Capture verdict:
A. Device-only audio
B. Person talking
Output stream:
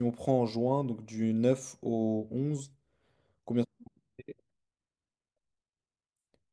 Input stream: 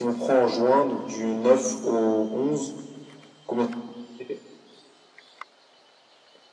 A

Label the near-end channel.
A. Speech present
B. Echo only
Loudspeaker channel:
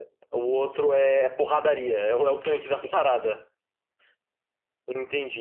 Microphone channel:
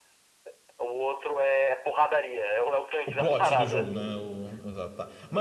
A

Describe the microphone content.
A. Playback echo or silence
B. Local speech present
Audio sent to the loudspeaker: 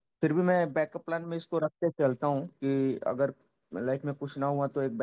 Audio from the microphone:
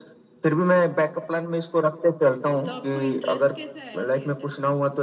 B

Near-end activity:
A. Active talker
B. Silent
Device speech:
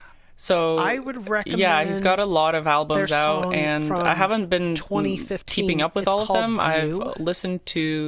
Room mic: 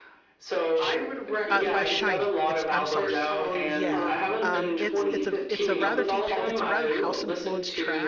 A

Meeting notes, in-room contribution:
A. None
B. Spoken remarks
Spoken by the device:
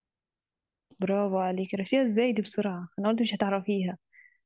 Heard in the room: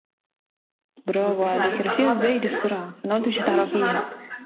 B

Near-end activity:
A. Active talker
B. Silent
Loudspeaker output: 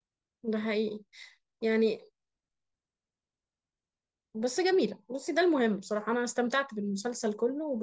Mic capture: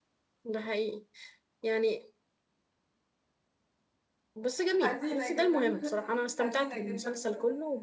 A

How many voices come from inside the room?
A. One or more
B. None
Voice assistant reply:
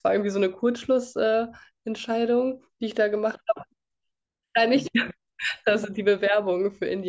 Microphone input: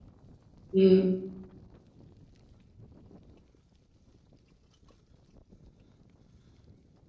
A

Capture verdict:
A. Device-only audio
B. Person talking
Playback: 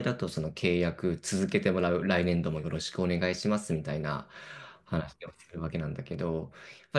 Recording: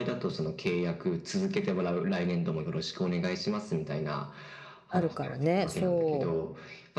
B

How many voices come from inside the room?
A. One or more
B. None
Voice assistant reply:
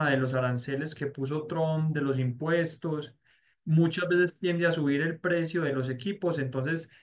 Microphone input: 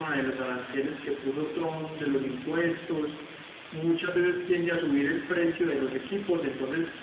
B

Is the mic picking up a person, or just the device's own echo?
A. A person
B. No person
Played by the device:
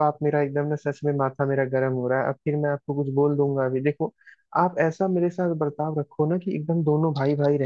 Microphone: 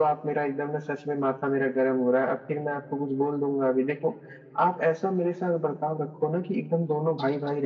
B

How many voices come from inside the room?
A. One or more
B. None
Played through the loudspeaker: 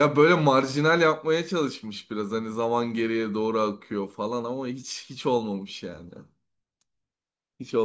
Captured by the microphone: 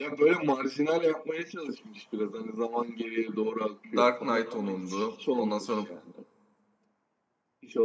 A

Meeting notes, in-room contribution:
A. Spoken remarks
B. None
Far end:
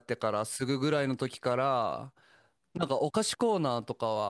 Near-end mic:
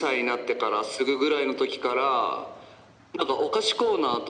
B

